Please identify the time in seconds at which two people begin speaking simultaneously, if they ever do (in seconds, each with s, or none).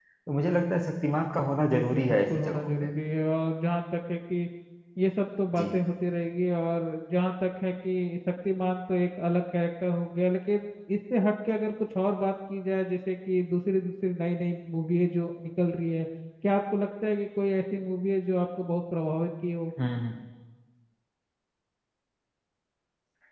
1.5 s